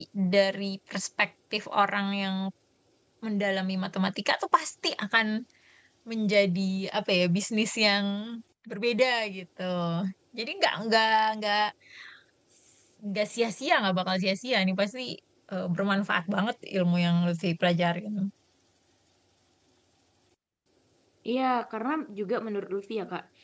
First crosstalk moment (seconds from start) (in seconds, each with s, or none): none